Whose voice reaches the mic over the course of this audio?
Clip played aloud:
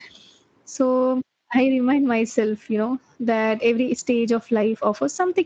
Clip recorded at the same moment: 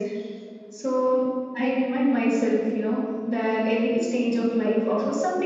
echo only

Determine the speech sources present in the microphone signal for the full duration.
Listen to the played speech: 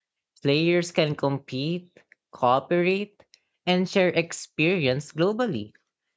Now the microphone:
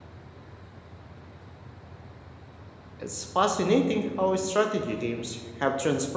user only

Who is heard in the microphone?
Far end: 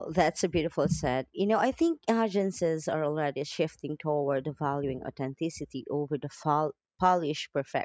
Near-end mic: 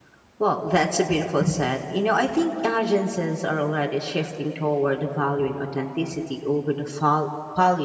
echo only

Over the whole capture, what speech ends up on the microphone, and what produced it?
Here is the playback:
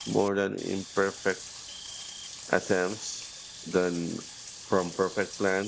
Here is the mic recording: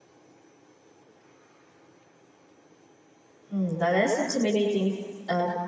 user only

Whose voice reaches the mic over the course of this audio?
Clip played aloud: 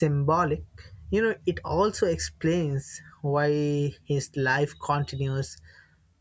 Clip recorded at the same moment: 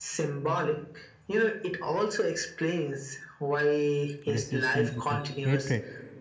both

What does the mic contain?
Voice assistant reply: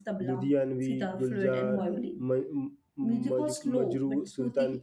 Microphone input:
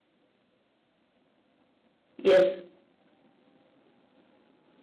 user only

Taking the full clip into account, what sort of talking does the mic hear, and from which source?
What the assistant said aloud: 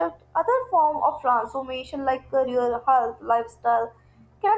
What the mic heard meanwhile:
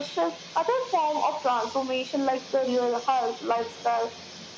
echo only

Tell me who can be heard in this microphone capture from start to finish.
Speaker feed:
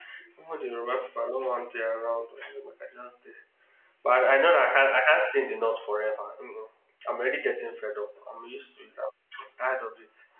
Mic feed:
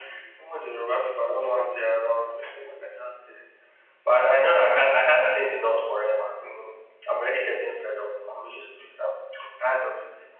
echo only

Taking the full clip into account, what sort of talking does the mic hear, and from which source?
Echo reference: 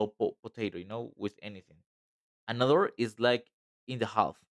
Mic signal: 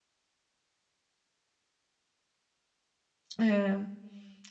user only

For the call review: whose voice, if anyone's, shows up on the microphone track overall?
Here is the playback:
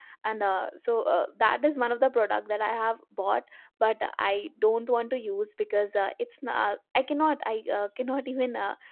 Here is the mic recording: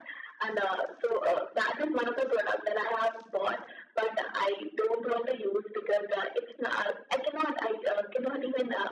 echo only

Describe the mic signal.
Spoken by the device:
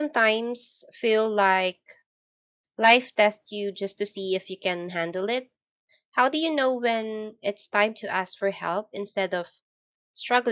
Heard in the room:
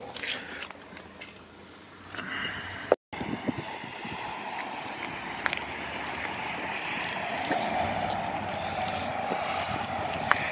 neither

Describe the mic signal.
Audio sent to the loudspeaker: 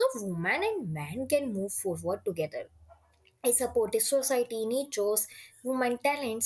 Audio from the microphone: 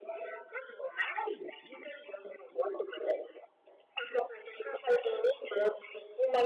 echo only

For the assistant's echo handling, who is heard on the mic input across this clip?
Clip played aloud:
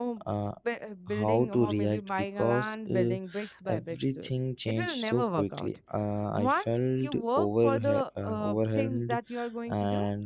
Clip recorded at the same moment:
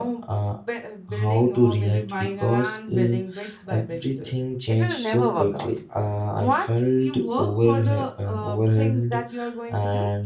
echo only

